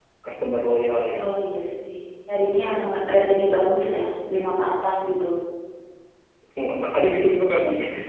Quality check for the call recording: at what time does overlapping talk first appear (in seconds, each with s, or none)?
none